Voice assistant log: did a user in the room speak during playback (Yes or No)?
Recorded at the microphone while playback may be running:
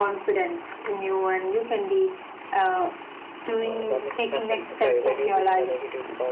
Yes